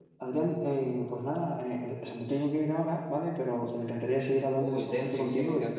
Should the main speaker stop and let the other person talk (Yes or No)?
Yes